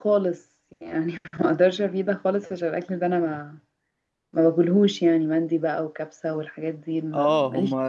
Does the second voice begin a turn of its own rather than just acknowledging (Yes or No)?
Yes